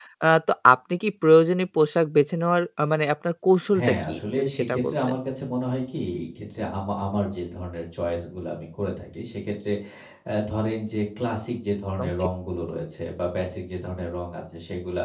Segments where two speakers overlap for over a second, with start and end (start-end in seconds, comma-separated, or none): 3.8-5.2